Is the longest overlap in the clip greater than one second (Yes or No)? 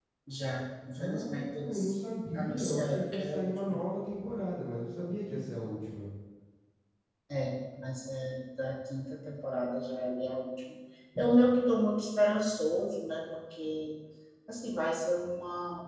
Yes